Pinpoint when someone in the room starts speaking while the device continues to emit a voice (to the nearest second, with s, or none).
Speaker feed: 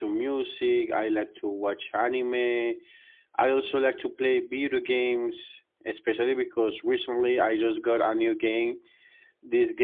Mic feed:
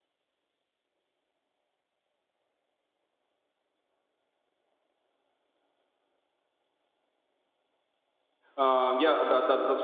9 s